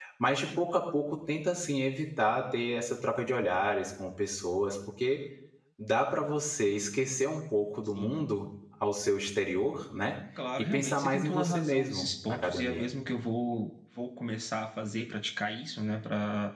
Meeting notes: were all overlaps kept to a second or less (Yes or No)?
No